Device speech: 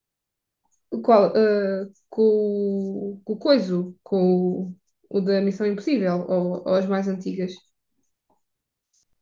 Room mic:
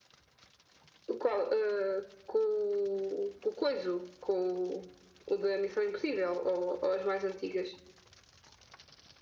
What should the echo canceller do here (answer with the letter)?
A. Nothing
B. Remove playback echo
B